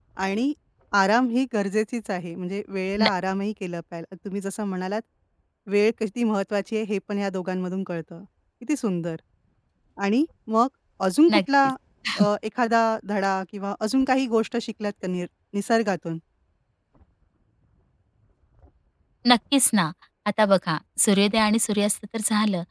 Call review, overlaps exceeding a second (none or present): none